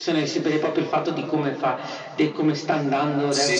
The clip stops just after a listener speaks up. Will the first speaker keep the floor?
No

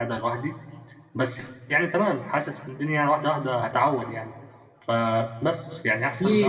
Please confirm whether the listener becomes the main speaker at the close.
Yes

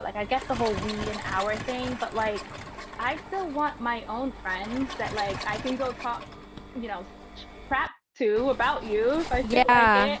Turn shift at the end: No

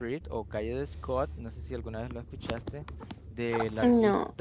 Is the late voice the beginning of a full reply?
No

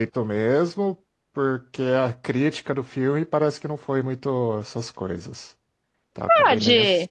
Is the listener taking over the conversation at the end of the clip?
Yes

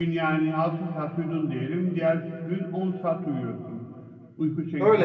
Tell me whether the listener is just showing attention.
No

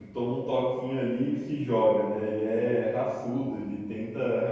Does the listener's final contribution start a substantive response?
No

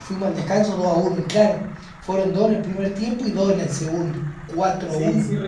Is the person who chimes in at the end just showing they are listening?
No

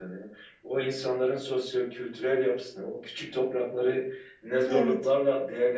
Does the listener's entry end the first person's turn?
No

